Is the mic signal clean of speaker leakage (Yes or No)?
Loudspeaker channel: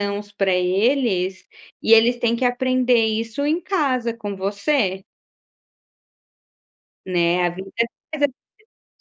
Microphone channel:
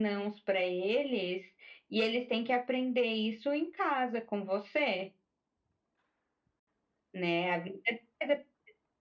No